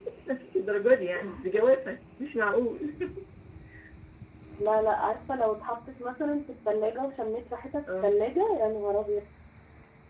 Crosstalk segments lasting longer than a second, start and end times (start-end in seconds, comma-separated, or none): none